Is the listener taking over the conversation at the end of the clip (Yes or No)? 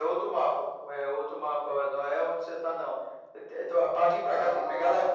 No